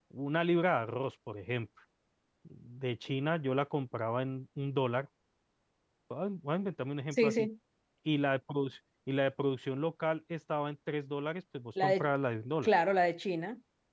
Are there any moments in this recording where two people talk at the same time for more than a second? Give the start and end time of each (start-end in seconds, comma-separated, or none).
none